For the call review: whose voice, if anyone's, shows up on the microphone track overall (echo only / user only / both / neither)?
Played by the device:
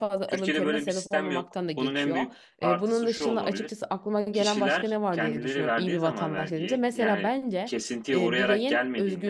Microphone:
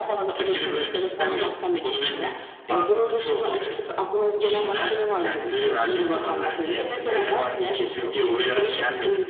both